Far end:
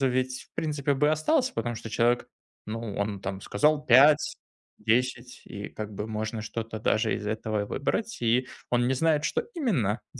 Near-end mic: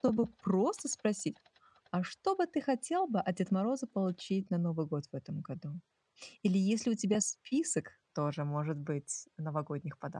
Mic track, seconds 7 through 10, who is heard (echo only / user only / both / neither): user only